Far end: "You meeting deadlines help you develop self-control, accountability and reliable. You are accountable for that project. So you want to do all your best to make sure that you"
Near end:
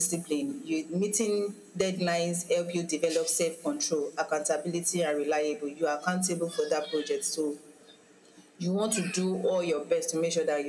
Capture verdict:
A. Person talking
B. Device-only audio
B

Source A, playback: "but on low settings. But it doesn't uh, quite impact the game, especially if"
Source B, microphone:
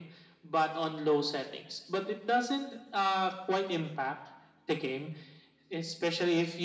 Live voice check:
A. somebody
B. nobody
B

